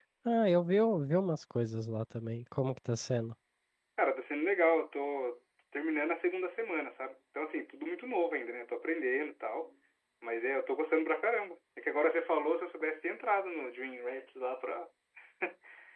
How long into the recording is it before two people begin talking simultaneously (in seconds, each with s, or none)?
none